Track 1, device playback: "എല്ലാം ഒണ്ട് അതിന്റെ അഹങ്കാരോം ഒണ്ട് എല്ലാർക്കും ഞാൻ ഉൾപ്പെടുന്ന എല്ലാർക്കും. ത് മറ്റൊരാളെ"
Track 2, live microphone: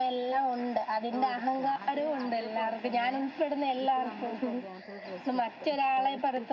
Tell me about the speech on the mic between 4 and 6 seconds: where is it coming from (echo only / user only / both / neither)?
both